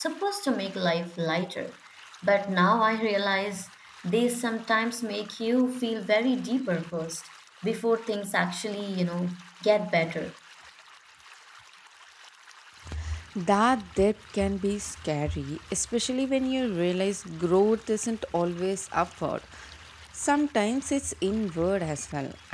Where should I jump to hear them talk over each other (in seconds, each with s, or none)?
none